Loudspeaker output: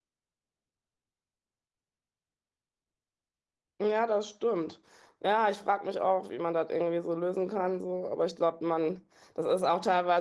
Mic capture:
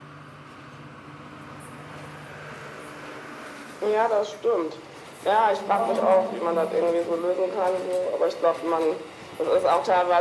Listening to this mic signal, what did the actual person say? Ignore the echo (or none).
Kann ich auch nicht. nachvollziehen.